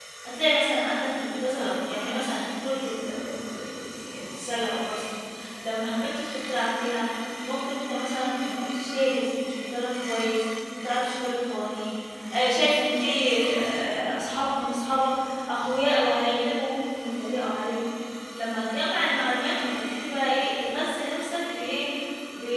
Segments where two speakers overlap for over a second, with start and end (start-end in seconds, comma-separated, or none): none